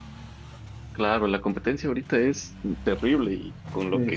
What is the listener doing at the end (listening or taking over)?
listening